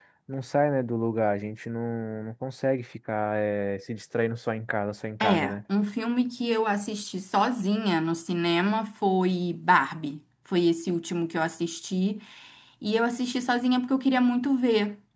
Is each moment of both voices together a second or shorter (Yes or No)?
Yes